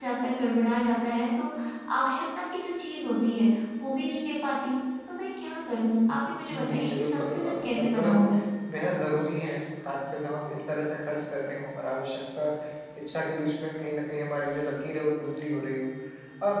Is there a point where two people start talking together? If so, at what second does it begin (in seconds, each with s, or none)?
6.5 s